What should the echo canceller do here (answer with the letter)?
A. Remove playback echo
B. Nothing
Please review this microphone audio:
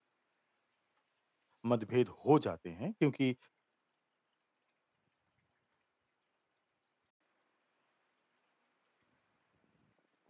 B